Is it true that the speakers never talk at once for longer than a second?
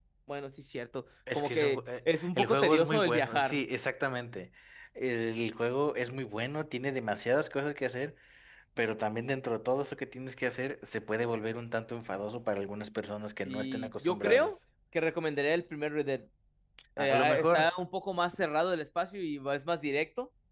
No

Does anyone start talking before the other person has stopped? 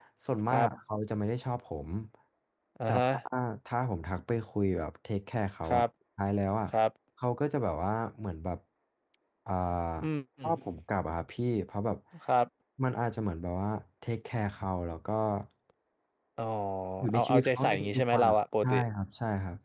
Yes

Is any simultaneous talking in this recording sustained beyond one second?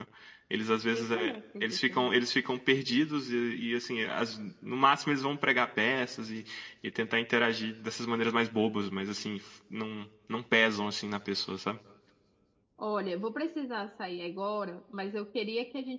Yes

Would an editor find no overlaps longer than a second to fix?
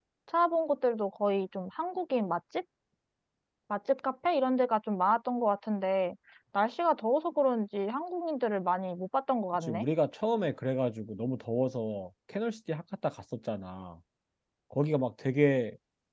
Yes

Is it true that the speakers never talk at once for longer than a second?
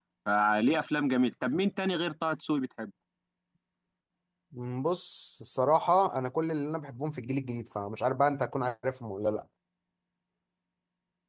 Yes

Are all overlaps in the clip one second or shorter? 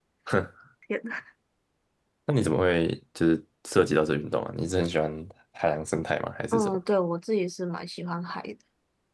Yes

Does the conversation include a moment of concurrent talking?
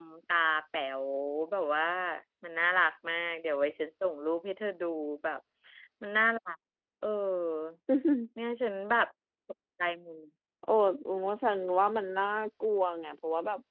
No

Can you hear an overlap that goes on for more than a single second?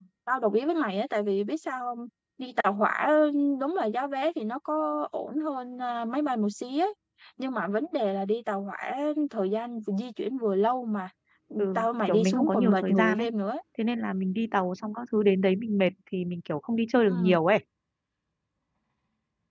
Yes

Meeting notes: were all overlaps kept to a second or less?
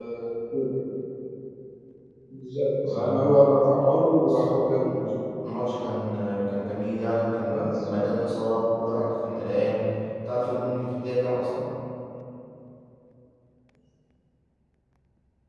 Yes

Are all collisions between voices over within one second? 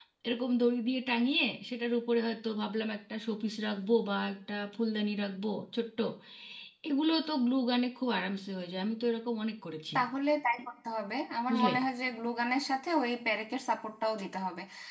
Yes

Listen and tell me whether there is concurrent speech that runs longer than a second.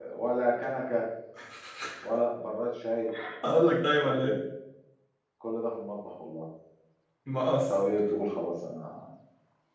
No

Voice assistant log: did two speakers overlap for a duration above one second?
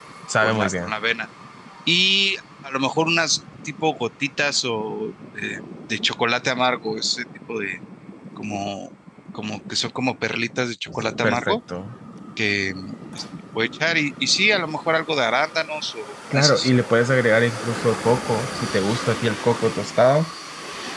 No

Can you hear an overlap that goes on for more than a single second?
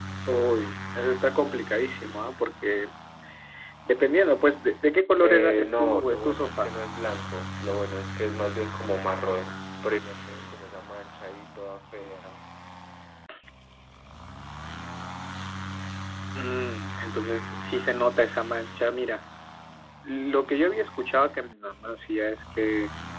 Yes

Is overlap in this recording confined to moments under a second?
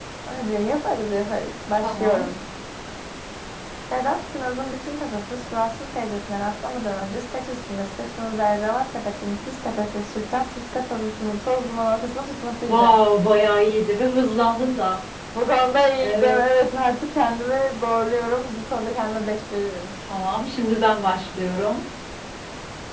Yes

